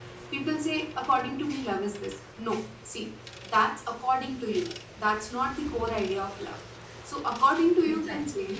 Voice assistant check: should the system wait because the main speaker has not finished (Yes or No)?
Yes